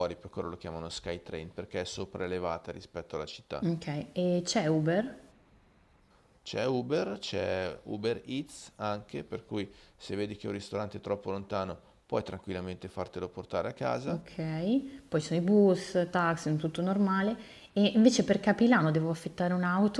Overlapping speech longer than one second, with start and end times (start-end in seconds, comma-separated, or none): none